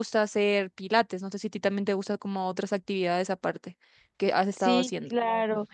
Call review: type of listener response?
taking over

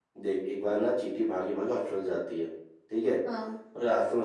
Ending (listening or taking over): listening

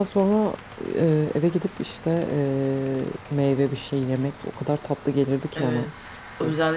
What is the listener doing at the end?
taking over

